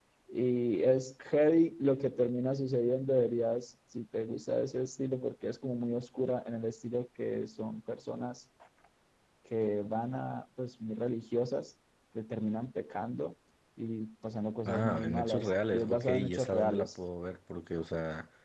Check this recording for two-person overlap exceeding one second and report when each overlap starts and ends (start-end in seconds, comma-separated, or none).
14.7-16.9